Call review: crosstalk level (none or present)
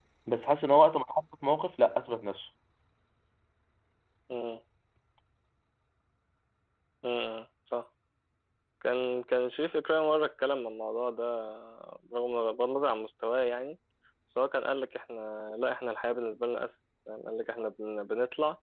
none